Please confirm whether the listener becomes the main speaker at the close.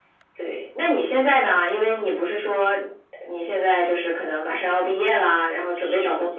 Yes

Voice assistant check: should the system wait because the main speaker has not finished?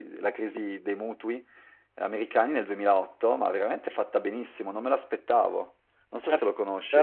No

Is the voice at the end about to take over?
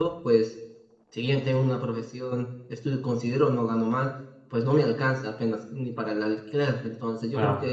No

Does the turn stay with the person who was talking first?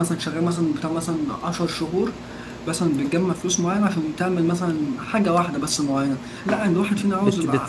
No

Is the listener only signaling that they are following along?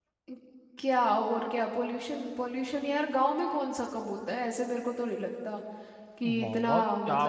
No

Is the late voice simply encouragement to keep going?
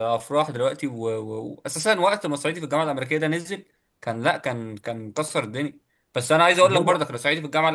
Yes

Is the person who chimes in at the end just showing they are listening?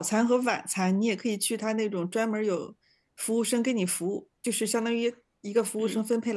Yes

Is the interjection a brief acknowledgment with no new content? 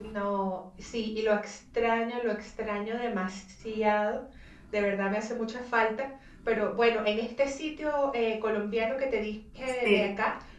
Yes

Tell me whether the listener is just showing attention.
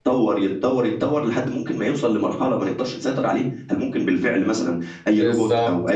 No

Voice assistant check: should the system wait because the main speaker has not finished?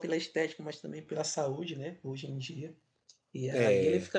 Yes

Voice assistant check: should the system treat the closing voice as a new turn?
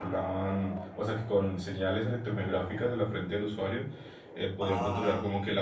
No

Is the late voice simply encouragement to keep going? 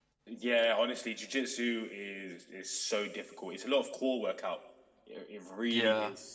Yes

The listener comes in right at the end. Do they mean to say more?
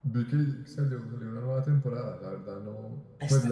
No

